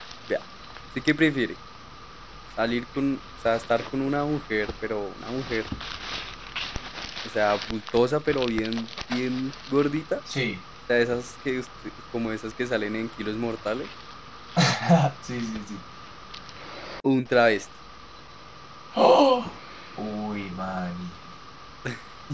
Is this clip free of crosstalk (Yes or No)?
Yes